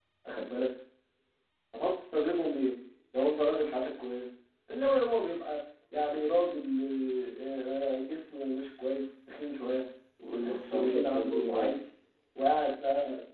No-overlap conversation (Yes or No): No